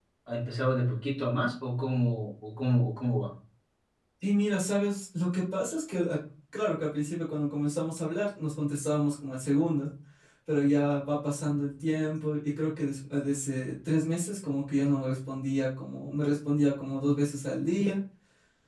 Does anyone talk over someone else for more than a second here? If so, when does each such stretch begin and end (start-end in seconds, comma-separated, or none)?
none